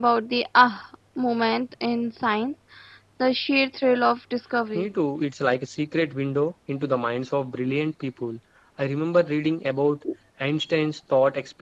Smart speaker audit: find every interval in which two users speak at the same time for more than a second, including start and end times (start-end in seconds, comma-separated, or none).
none